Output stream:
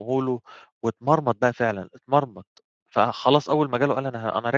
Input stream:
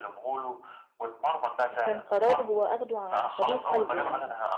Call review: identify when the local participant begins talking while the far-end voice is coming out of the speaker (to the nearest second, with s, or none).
2 s